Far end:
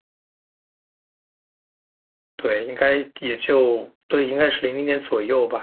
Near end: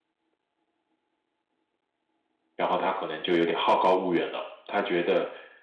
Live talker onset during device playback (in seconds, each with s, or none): 2.6 s